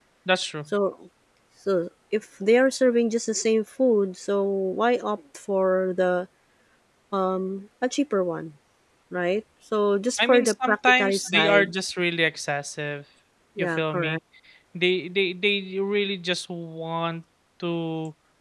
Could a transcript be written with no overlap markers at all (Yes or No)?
No